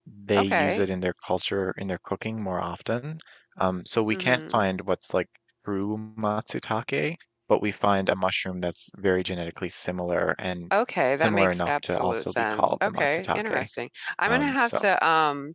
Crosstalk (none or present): present